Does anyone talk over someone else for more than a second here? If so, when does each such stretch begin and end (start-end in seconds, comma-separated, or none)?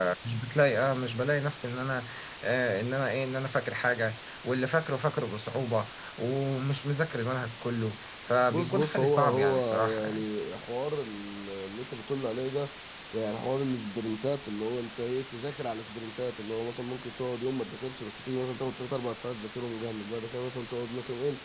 8.5-10.2